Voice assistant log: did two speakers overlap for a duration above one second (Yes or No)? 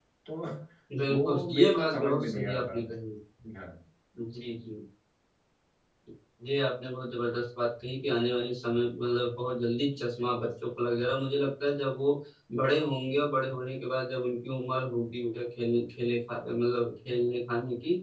Yes